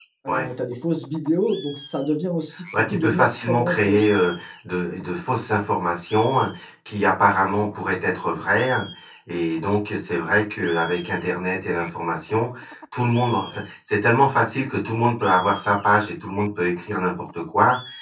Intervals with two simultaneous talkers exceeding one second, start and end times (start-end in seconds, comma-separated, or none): 2.7-4.1